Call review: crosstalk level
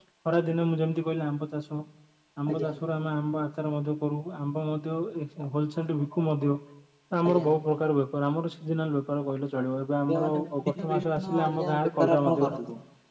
present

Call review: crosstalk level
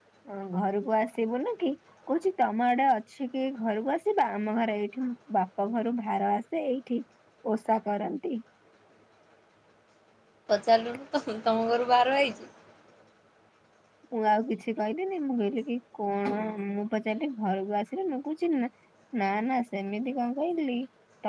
none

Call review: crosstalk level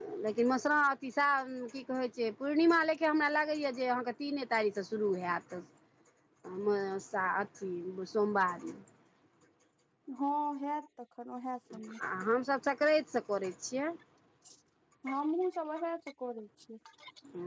none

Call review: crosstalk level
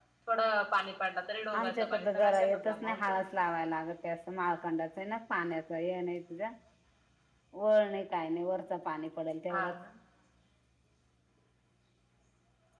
present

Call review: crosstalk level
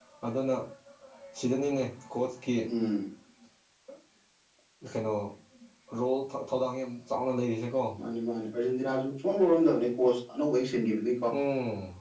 none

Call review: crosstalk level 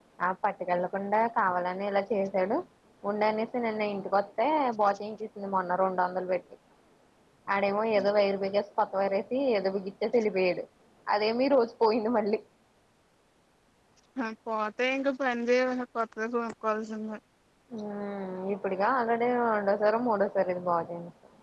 none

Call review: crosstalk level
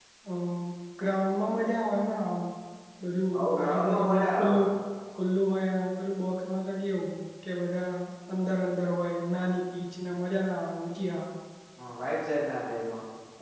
present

